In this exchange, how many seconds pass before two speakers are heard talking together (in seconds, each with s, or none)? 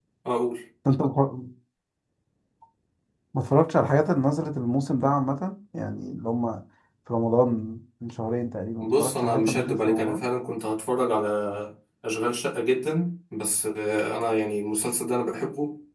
8.8 s